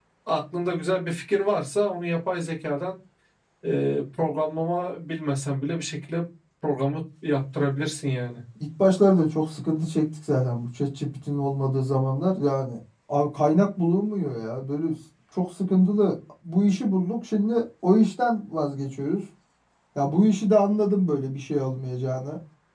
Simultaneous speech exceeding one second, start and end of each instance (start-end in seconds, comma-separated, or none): none